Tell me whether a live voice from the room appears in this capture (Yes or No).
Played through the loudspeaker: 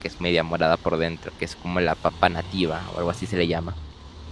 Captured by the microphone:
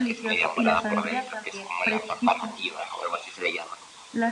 Yes